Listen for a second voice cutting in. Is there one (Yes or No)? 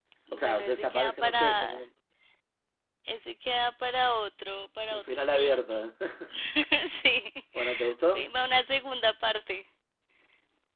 Yes